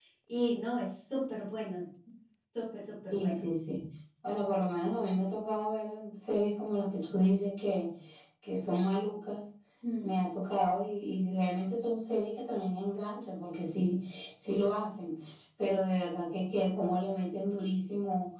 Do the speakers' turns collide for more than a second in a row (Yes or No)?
No